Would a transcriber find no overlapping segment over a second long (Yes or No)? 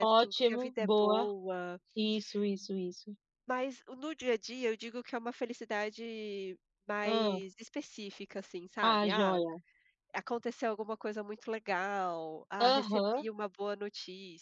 No